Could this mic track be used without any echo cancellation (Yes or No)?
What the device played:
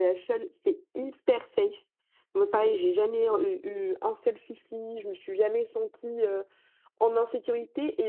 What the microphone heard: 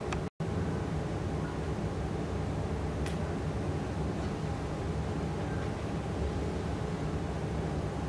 Yes